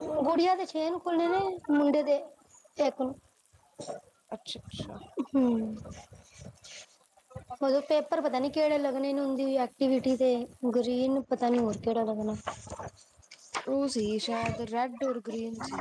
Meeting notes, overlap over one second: none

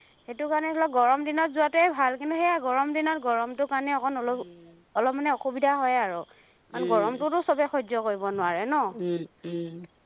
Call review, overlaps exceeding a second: none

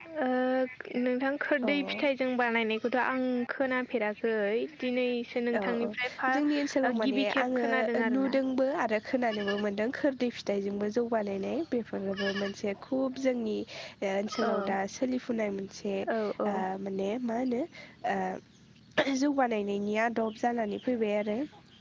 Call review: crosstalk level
present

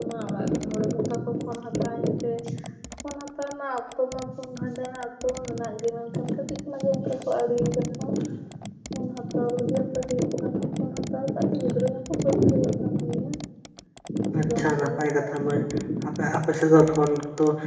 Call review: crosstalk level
present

